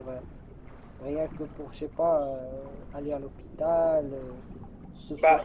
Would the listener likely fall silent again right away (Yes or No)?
No